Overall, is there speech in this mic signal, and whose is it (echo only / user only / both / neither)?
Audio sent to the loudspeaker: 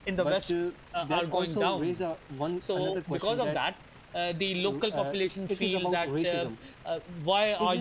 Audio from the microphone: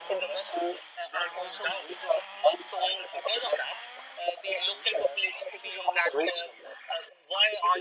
echo only